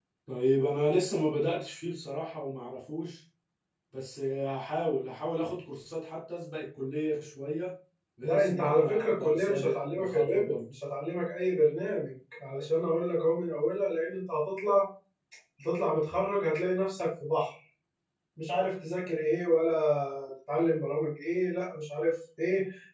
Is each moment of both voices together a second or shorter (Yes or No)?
No